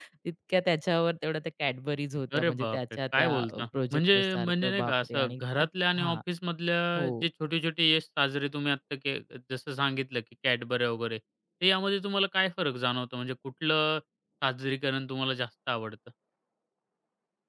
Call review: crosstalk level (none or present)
present